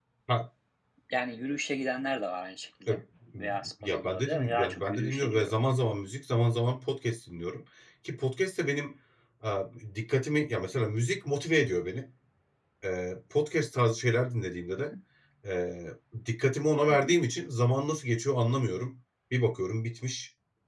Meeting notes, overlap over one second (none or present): present